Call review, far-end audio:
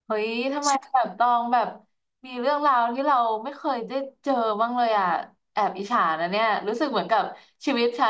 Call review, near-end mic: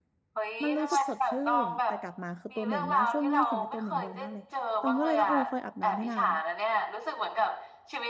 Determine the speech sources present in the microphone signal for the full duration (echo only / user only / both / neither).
both